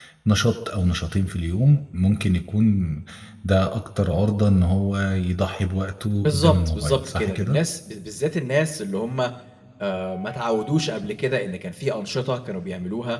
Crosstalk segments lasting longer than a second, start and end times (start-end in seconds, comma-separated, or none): 6.2-7.6